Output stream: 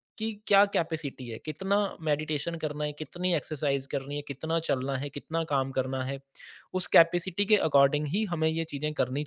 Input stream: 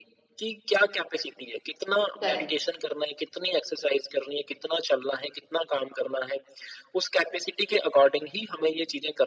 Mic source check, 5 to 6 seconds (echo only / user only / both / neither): echo only